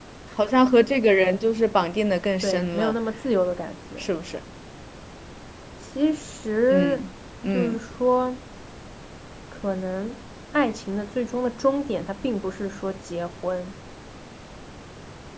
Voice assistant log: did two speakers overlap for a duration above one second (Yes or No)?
No